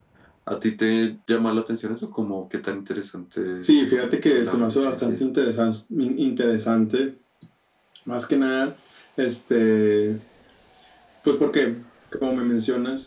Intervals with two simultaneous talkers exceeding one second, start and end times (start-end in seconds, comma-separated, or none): 3.6-5.3